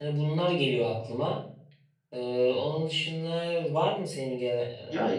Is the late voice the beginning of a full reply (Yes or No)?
Yes